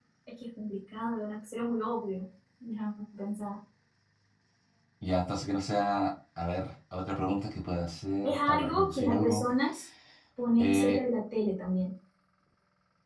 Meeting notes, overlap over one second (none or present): present